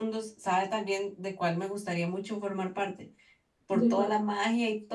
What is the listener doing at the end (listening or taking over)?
listening